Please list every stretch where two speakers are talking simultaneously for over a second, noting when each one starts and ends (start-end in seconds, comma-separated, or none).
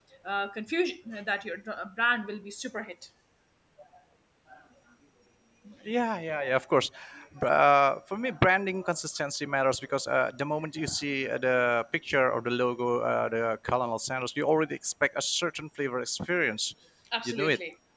none